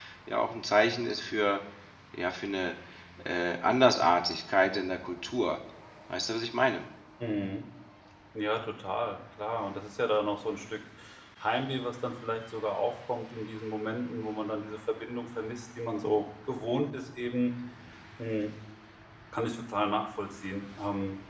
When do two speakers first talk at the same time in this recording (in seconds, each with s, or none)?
none